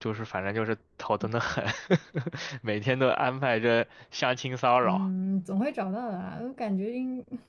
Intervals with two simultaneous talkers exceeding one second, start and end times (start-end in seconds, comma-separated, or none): none